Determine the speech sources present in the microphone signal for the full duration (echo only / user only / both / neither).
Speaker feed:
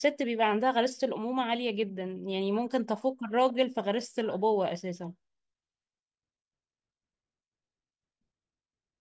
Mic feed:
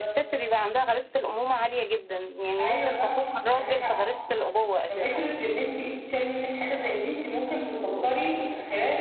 both